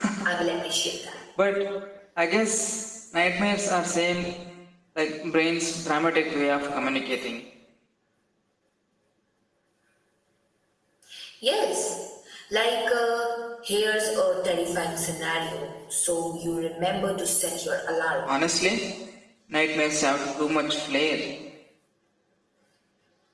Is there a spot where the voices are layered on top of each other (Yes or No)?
No